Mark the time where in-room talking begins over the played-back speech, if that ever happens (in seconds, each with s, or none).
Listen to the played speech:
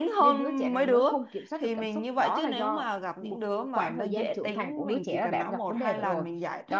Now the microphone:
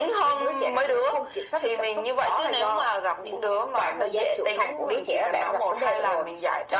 none